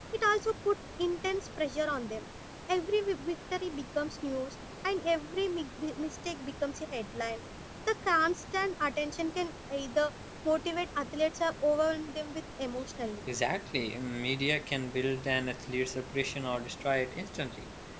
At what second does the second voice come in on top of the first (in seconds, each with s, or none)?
none